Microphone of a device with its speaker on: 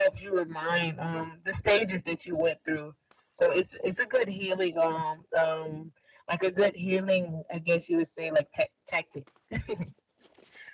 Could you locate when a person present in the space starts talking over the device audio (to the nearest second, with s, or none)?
none